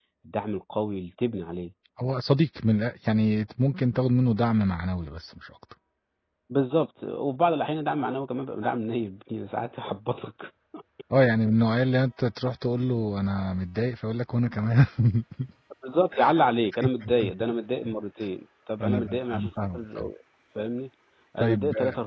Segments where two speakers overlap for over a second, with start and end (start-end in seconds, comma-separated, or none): 18.8-20.1